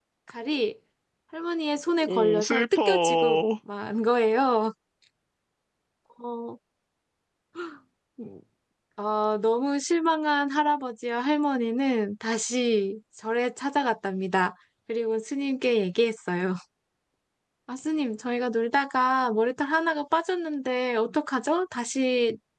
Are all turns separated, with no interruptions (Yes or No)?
No